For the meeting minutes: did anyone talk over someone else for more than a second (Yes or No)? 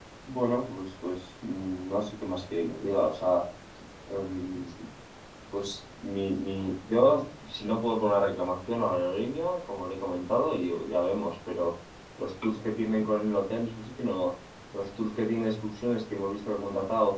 No